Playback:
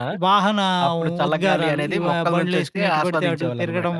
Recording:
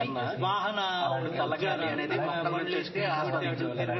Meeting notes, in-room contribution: present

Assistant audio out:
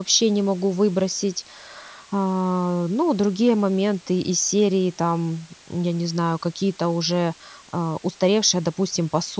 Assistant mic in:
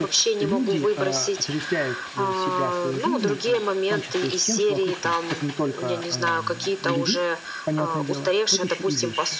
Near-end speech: present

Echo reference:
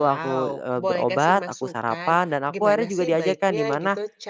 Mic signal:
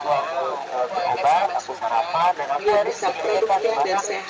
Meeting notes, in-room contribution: present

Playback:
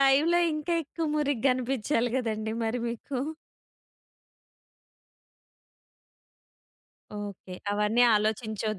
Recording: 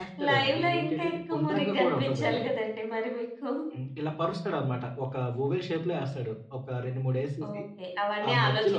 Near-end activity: present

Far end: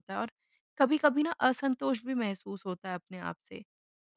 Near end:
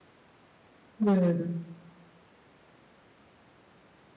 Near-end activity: present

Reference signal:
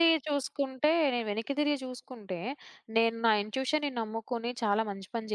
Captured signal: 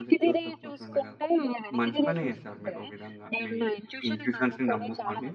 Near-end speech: present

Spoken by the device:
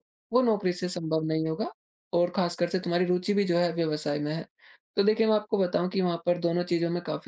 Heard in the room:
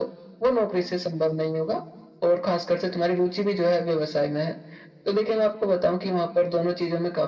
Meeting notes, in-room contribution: none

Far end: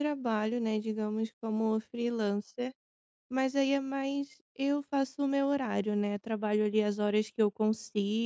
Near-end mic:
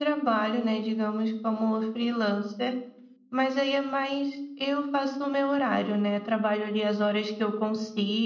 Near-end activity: none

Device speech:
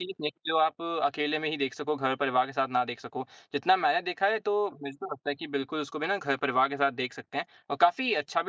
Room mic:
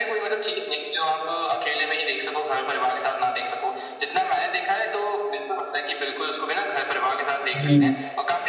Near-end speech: present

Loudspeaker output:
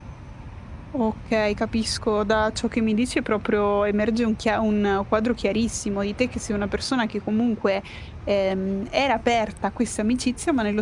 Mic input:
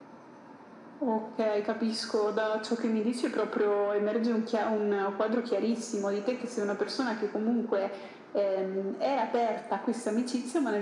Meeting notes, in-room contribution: none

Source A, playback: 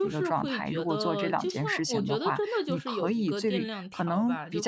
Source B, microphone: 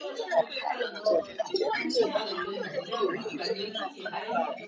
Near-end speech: present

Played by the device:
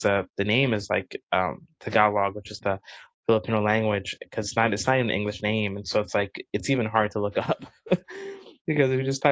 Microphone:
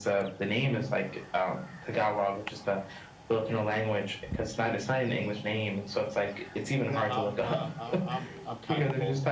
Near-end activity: present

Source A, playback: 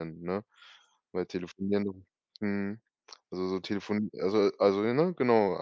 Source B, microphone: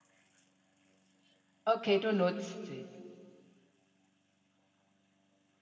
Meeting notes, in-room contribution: present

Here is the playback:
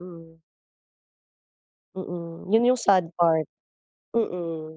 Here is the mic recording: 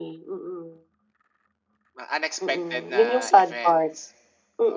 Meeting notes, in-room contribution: present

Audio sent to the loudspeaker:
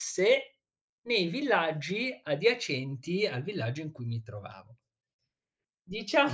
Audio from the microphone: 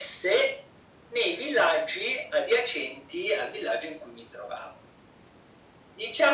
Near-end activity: none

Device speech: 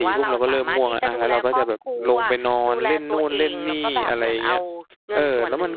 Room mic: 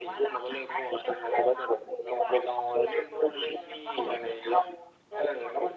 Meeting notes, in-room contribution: none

